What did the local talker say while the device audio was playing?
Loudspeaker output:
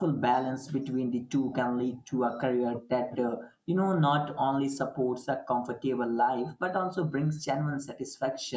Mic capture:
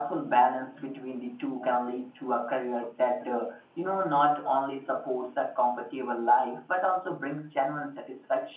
none

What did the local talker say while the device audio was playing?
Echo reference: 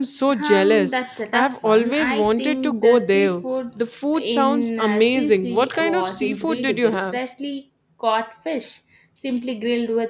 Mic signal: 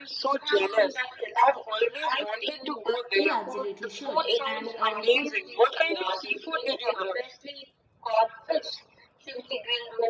You absolutely should. And a good

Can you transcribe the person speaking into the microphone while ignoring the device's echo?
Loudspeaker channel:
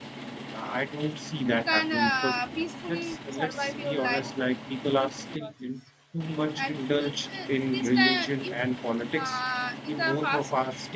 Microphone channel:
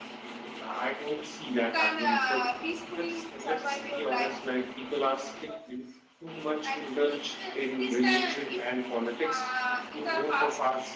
none

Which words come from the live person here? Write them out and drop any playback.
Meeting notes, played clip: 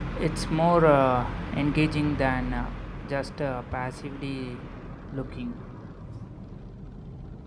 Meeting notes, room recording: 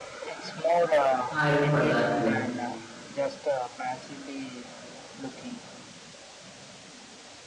I remember that too.

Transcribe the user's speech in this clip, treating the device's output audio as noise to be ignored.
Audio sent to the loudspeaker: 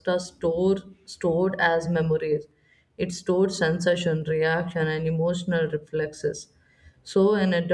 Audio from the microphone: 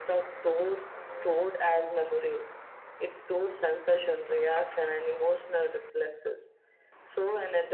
none

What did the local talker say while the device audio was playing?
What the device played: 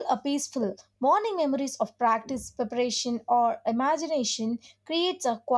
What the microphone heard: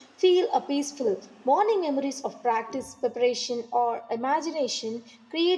none

